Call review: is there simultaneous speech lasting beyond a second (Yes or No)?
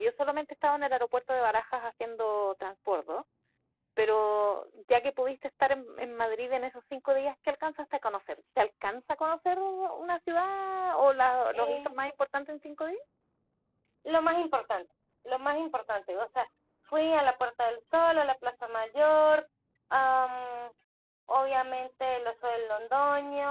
No